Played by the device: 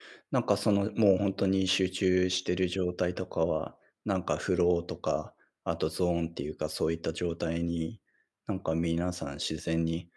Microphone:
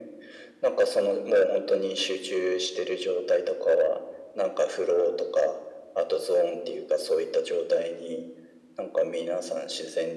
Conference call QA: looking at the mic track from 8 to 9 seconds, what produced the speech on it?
echo only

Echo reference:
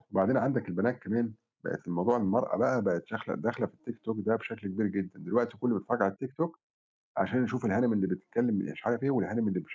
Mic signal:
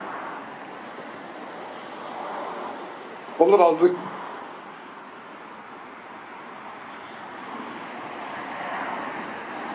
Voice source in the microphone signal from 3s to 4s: user only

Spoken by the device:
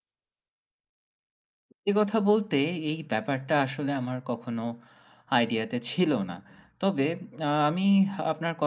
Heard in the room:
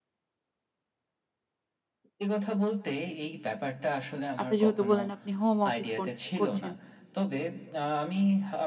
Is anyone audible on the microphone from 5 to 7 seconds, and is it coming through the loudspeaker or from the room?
both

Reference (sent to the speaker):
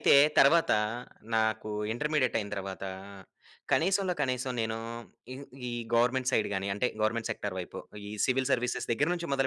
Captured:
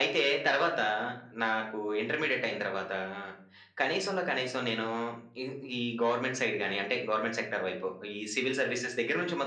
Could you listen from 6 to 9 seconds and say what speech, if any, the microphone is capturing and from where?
echo only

